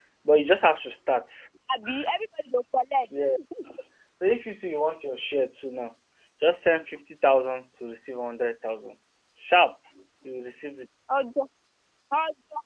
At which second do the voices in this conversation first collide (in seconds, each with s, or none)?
none